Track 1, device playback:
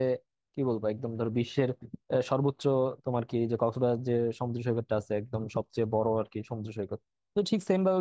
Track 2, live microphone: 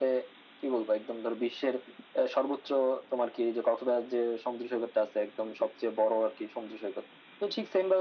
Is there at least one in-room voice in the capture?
No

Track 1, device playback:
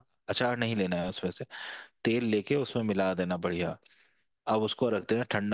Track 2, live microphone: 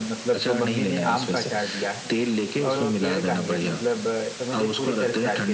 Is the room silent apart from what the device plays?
No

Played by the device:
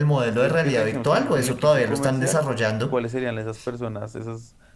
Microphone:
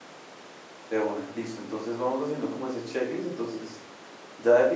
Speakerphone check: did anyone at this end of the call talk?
Yes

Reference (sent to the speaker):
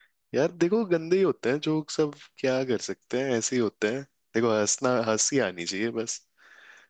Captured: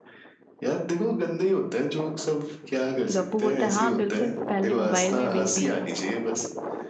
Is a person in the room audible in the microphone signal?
Yes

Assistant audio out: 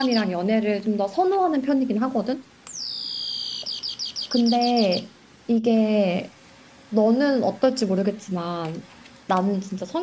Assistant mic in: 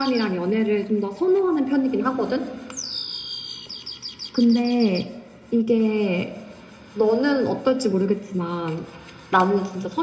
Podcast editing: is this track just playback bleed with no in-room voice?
Yes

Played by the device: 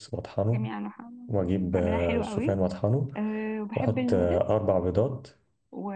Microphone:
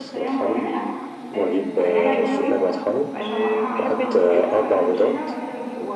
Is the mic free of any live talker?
No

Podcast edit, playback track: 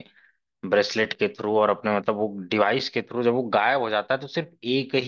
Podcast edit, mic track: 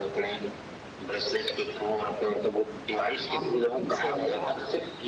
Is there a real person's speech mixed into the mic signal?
Yes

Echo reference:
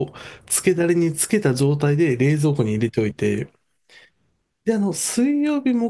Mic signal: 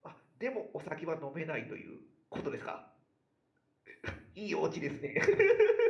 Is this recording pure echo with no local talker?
No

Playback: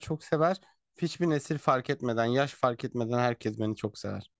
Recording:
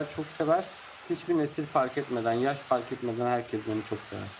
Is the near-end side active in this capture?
No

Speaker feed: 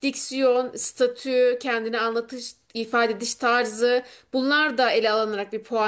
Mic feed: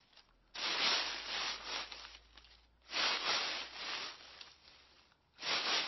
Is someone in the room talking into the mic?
No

